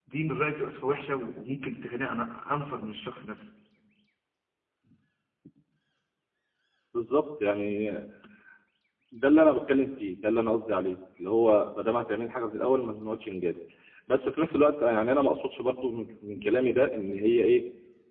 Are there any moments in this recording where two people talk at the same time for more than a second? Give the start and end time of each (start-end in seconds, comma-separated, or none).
none